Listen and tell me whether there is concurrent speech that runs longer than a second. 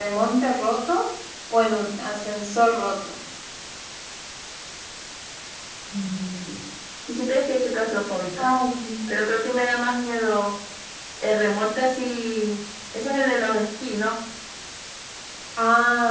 No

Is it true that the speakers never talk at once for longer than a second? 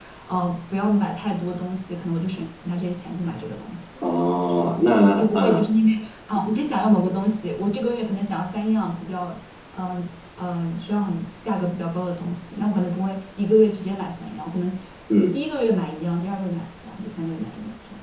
Yes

